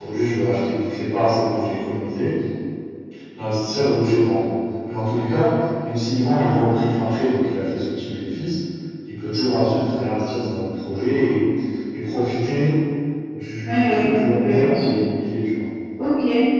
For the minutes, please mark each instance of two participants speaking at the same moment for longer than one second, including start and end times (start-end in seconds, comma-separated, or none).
13.6-14.8